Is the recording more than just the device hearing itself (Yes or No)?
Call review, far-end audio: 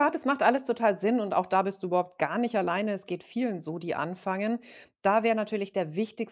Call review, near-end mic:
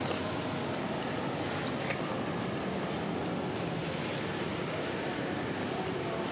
No